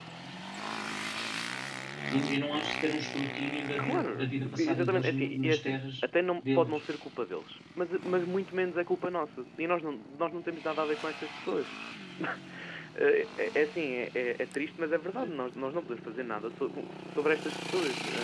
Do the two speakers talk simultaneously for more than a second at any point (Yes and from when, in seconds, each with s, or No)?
Yes, from 3.8 s